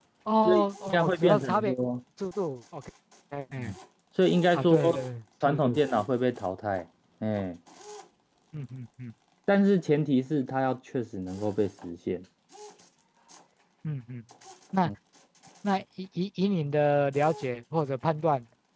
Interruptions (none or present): present